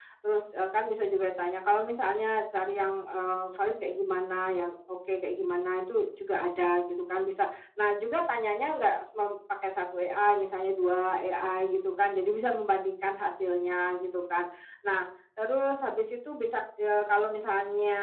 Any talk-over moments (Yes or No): No